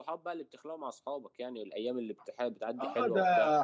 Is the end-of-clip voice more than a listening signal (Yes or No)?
Yes